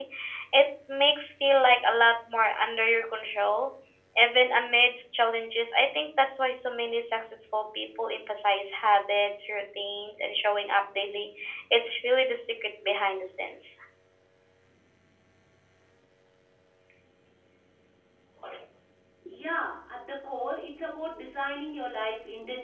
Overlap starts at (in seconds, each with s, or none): none